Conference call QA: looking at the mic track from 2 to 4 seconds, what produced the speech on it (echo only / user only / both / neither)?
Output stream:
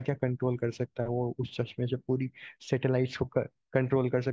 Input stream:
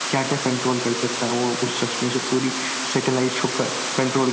echo only